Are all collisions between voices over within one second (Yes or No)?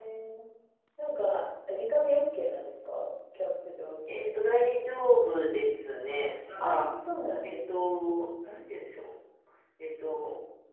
Yes